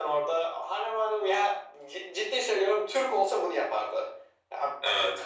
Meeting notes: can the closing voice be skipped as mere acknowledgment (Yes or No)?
Yes